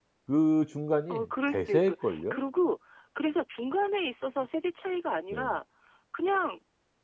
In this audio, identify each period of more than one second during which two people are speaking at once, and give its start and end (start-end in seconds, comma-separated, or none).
1.1-2.4